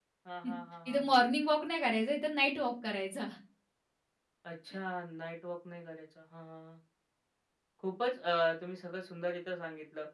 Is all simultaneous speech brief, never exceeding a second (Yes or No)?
Yes